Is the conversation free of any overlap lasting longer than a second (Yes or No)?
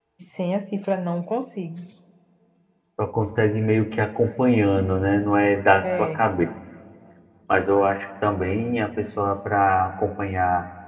Yes